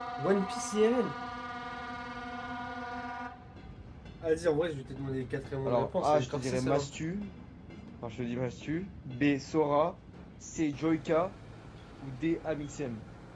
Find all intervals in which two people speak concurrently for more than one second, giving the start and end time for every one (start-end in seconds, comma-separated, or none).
5.7-6.9